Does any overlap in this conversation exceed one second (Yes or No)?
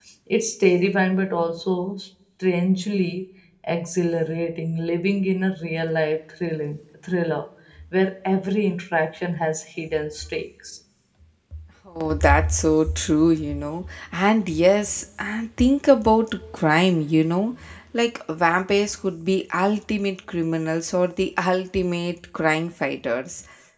No